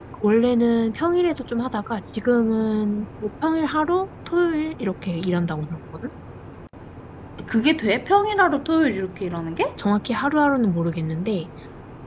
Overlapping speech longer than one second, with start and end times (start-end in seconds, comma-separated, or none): none